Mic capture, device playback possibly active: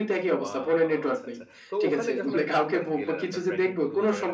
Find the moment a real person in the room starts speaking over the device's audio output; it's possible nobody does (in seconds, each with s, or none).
0.4 s